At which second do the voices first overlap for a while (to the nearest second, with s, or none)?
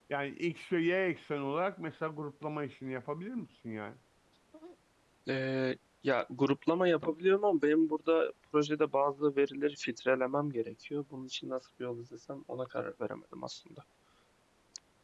none